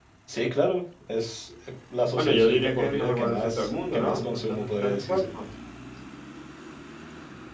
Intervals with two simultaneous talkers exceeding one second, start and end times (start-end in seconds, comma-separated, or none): 2.2-5.3